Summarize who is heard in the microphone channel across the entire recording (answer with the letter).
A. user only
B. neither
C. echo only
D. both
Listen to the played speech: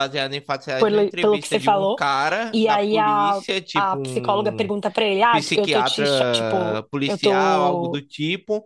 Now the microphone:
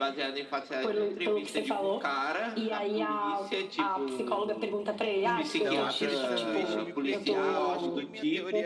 D